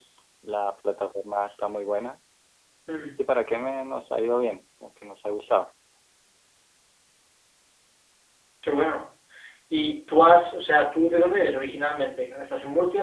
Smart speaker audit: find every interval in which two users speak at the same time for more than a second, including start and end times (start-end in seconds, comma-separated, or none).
none